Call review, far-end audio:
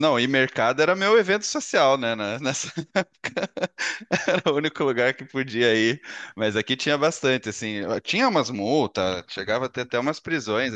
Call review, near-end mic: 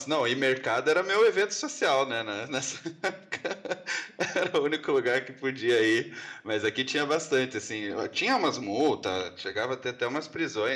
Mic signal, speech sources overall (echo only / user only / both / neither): echo only